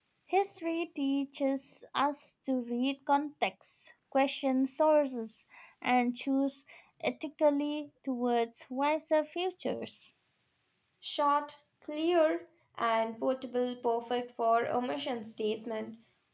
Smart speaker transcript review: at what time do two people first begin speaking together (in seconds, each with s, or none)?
none